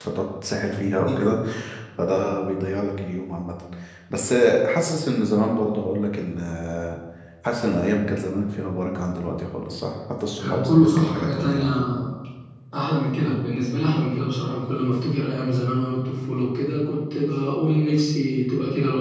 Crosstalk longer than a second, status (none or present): present